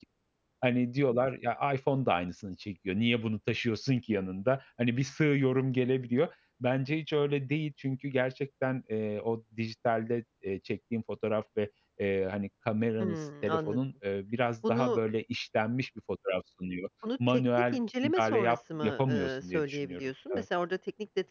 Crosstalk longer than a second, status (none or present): present